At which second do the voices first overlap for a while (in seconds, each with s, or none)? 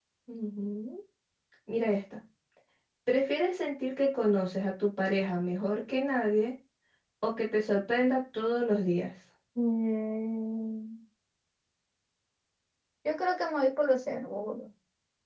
none